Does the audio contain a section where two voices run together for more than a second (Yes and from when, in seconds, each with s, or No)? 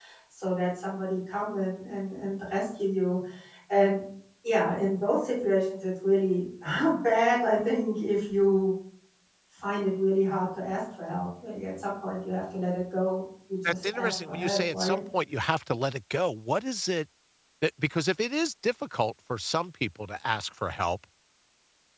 Yes, from 13.6 s